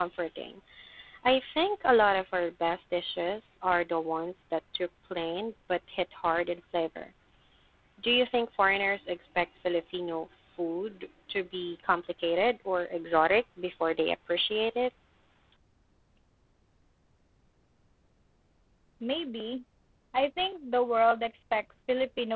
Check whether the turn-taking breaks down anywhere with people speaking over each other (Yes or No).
No